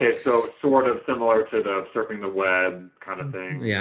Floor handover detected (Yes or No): Yes